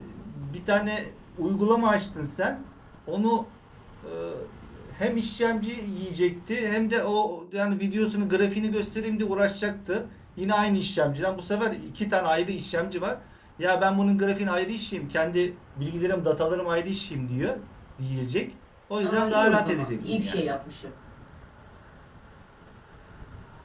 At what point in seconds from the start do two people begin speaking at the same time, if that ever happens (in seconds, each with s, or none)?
19.0 s